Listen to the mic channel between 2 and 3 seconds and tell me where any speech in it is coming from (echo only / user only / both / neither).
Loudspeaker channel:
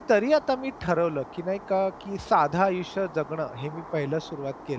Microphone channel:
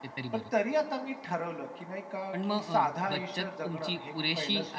both